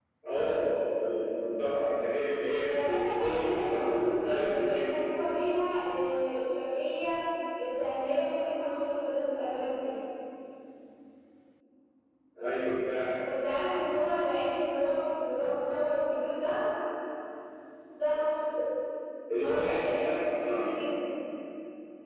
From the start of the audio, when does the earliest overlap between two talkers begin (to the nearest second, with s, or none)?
3 s